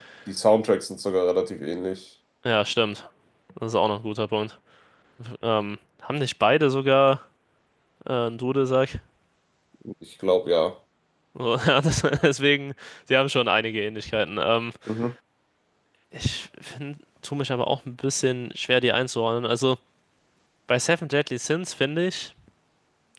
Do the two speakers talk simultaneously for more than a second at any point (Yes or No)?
No